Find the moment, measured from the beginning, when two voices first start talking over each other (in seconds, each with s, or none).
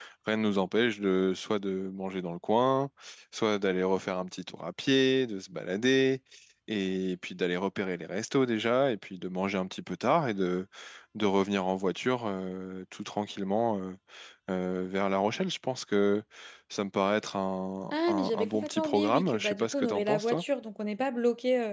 17.9 s